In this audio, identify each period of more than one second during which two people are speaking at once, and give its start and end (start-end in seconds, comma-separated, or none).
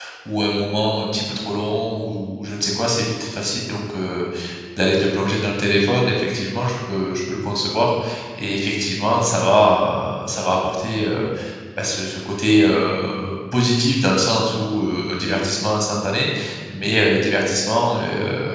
none